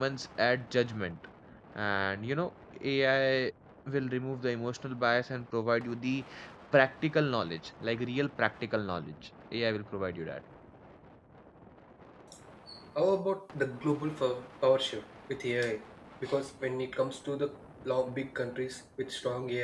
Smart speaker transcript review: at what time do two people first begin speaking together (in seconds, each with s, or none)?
none